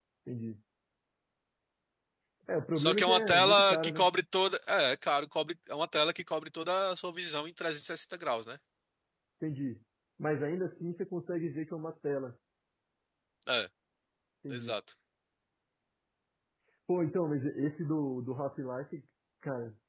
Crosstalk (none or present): present